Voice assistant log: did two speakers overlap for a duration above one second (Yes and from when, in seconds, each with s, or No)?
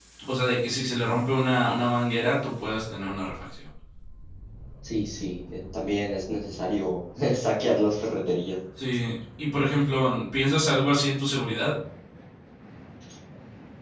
No